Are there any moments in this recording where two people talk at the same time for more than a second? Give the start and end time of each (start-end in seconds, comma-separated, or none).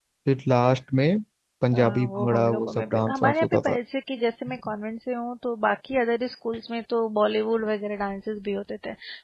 1.7-3.8